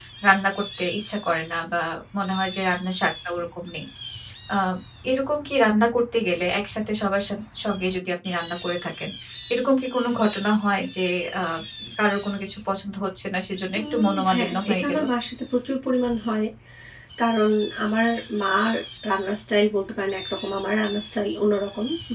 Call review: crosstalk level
present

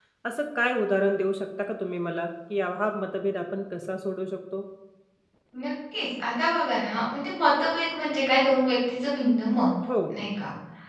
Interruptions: none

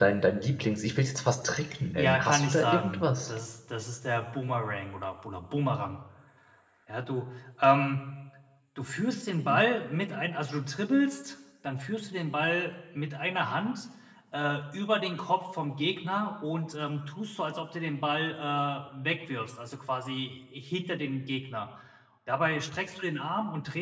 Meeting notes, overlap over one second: present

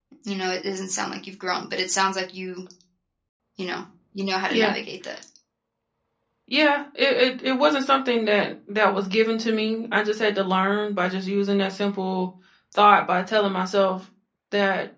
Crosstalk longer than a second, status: none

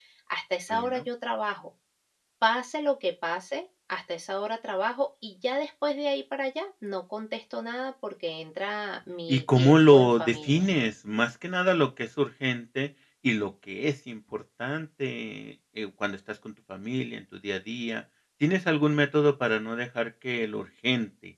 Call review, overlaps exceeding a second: present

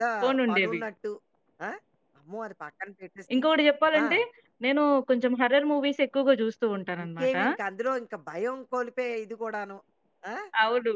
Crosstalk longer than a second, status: none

